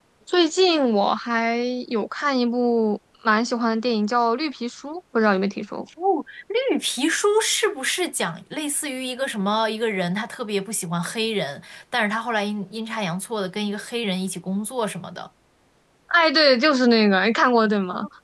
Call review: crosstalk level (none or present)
none